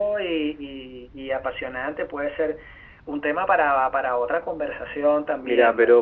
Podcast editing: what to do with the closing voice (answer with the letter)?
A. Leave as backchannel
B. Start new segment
B